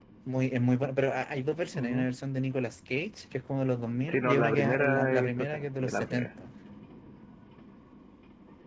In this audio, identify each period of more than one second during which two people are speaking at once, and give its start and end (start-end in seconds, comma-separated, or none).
4.0-6.3